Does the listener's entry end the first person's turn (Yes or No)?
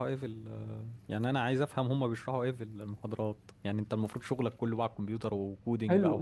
Yes